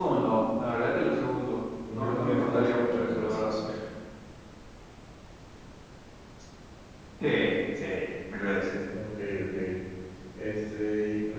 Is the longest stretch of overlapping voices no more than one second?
No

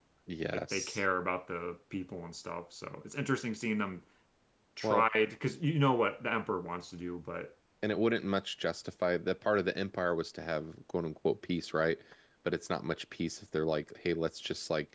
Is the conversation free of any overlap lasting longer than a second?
Yes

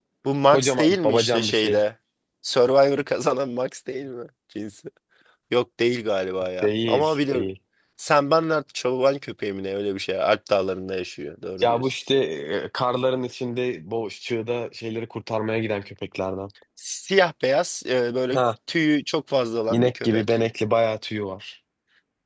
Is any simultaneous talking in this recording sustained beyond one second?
Yes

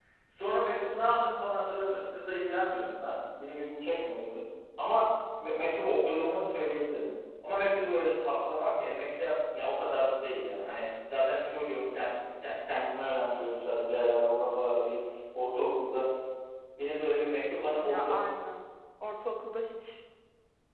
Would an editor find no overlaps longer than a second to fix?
Yes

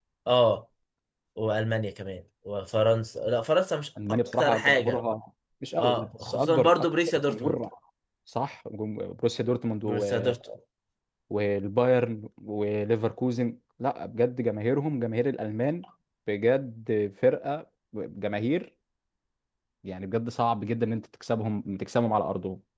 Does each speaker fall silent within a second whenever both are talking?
No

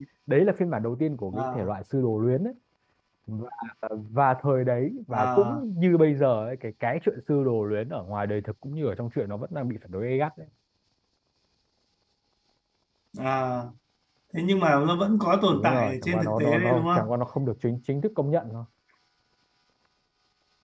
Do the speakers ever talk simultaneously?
Yes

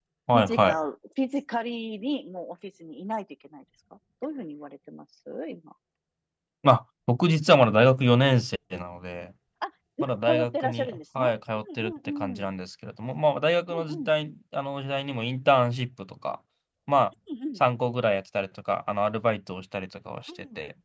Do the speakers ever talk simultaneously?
Yes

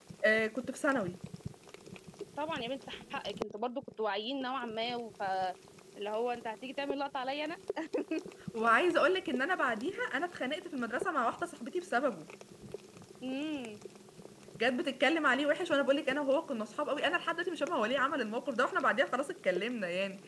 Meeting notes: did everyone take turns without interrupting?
Yes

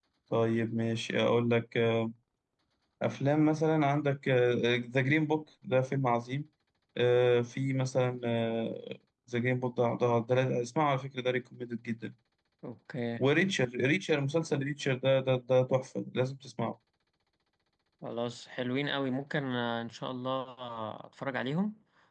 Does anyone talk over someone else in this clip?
No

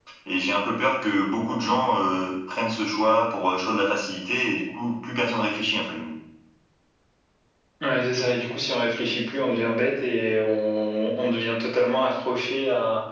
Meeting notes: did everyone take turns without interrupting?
Yes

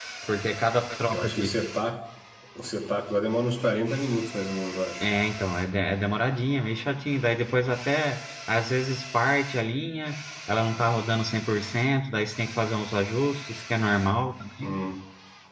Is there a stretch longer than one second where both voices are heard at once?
No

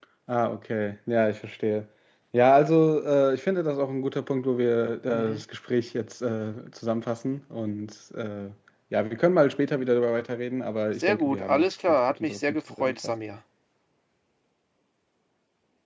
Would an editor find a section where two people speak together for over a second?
Yes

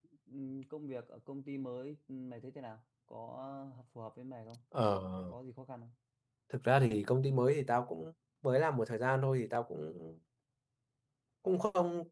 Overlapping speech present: No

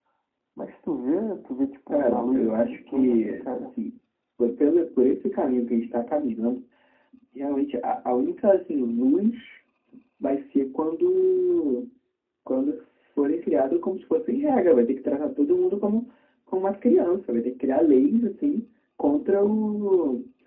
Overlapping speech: Yes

